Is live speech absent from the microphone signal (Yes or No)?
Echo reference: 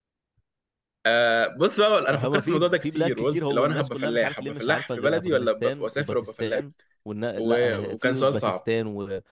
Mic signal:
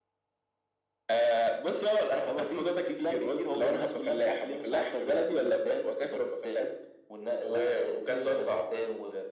Yes